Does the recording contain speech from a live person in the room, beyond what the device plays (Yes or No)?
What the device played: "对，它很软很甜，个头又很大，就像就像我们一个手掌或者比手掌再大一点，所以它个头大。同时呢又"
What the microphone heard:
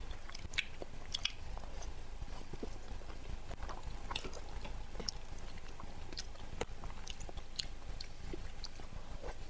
No